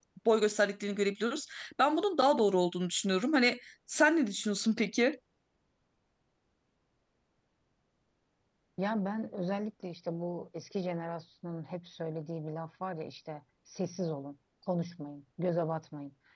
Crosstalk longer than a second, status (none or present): none